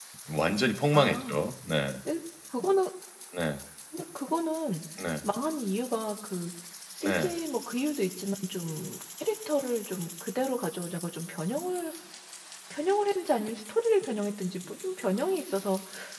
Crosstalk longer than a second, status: none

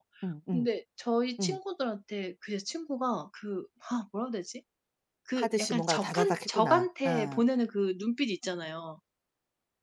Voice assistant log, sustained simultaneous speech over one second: present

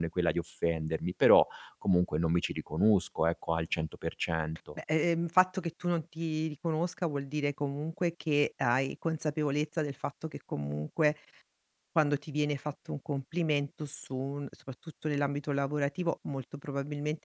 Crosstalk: none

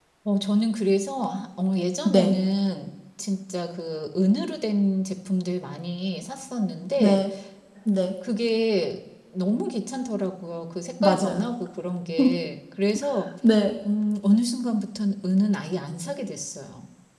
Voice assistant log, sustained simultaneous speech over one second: none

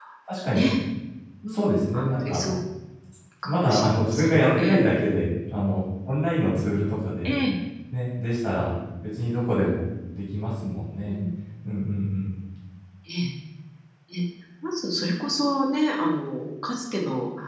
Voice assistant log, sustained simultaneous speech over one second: present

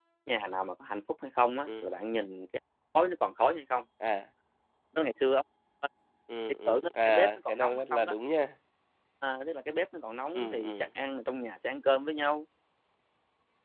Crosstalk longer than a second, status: present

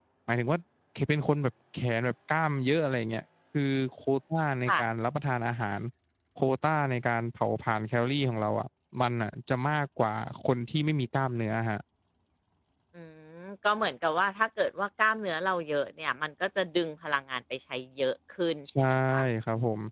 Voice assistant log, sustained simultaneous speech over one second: none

